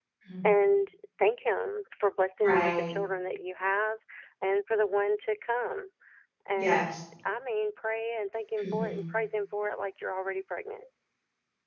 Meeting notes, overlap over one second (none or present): none